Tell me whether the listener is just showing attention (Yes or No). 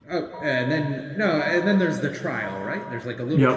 No